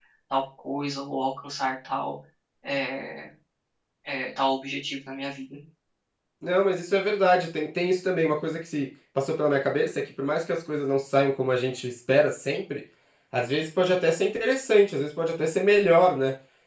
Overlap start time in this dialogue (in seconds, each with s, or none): none